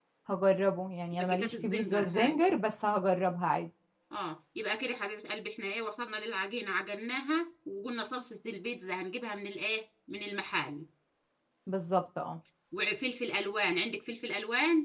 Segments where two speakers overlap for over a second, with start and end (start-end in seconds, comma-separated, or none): 1.1-2.4